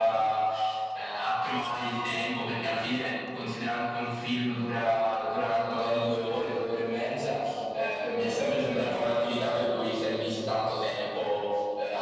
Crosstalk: present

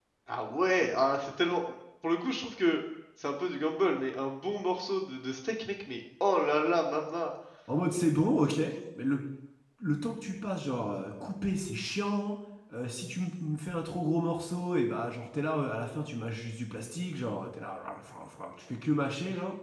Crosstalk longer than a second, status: none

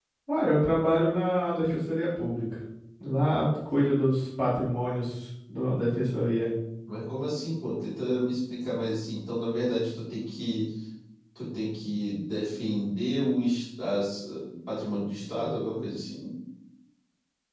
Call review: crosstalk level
none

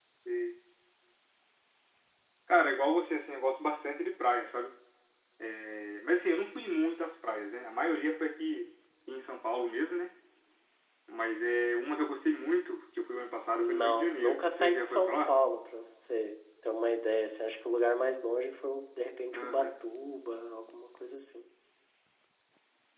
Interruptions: present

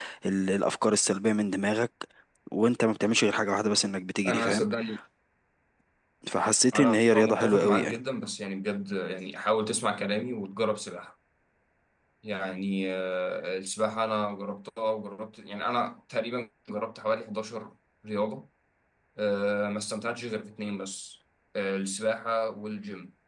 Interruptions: present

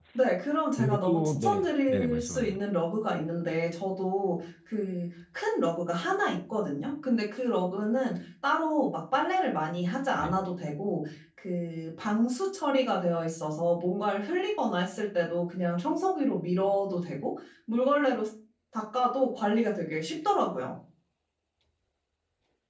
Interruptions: present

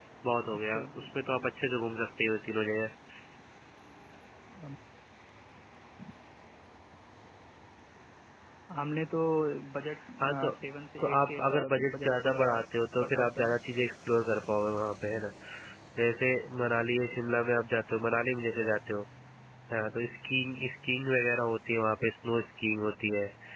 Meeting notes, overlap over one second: present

